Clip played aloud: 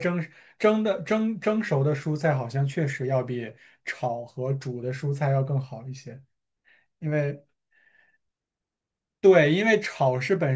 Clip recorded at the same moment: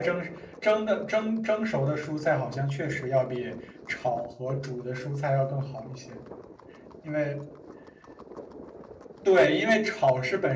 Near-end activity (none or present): none